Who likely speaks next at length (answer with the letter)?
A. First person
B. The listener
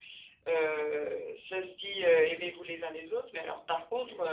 A